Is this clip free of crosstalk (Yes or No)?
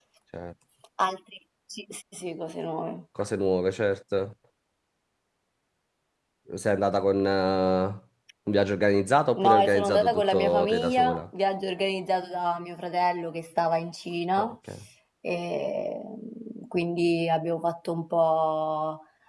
No